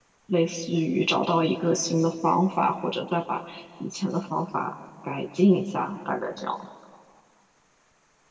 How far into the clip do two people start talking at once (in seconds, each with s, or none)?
none